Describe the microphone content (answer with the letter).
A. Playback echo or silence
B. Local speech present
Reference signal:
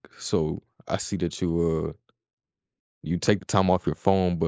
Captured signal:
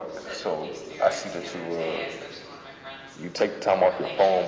B